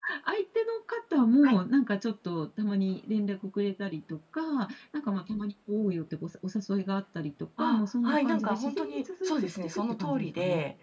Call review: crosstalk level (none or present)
present